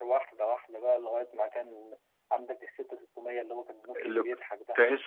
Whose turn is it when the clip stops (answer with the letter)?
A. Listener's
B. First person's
A